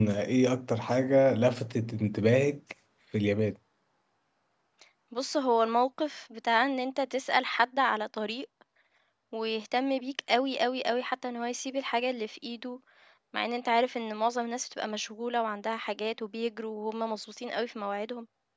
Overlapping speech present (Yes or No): No